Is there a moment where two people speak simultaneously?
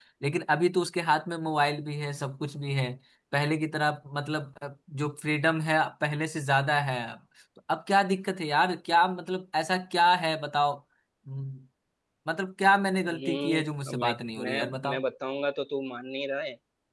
Yes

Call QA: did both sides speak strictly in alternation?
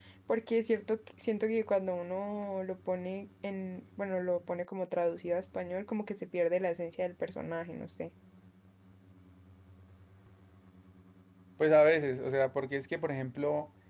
Yes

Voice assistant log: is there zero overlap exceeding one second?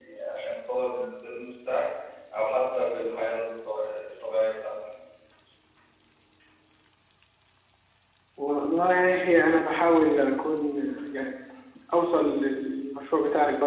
Yes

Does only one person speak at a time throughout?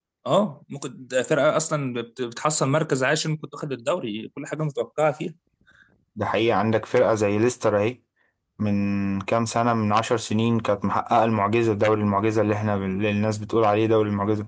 Yes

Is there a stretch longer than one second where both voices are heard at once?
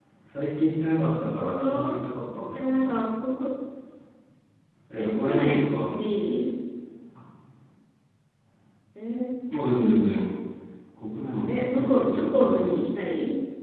Yes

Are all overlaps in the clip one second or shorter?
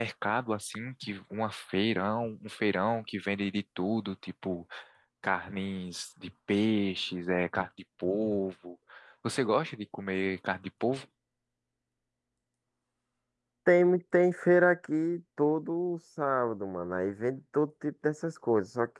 Yes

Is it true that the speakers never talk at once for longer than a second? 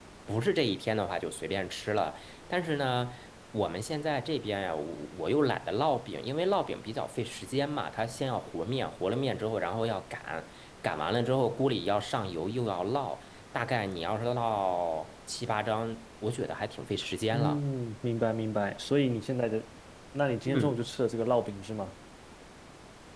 Yes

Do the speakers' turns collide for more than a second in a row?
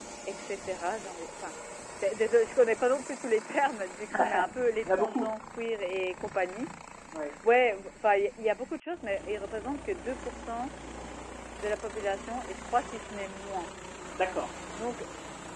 Yes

